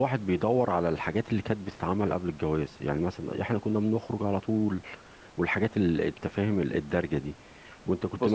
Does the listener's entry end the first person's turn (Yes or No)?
No